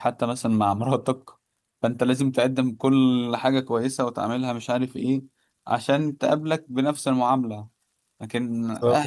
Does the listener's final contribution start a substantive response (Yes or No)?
No